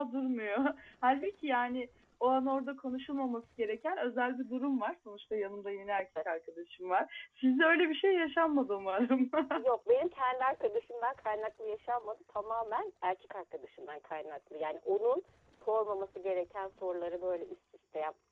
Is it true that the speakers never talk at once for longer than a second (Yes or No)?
Yes